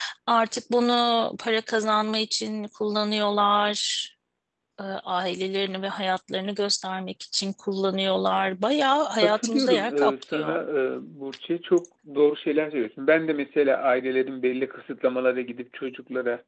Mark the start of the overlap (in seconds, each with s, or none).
9.2 s